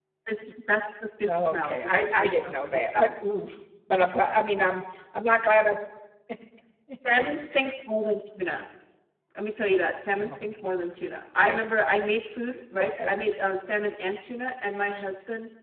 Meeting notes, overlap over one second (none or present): present